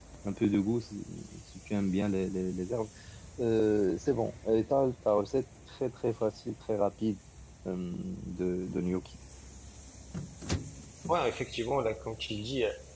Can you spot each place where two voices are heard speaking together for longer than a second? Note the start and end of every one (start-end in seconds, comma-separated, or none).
none